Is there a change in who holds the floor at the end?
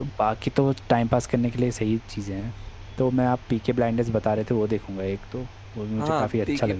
Yes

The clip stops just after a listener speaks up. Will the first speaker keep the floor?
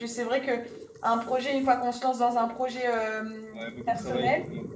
No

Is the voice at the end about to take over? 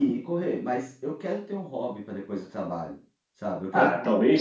Yes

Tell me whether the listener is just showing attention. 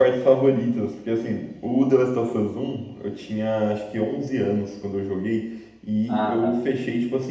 Yes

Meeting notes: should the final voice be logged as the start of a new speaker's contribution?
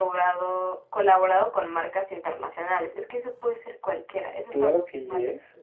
Yes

